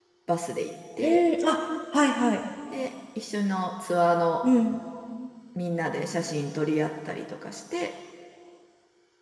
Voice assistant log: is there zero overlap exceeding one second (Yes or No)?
Yes